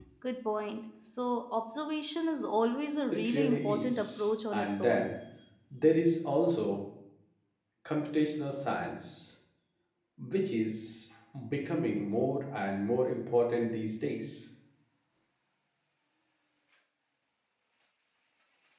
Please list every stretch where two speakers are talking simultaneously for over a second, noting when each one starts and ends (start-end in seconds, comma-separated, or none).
3.2-5.1